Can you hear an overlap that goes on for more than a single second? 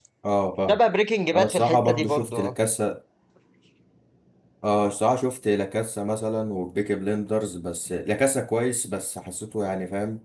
Yes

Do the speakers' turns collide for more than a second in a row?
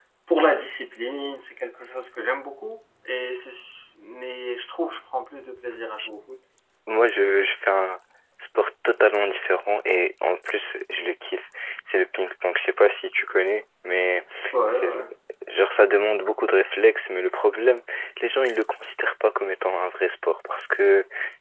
No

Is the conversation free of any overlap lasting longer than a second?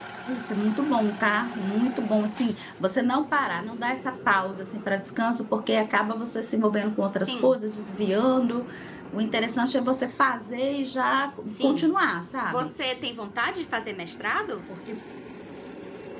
Yes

